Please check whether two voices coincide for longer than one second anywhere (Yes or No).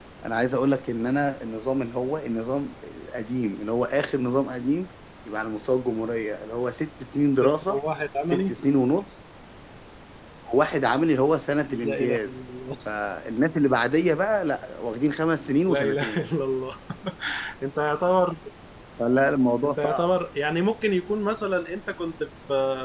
No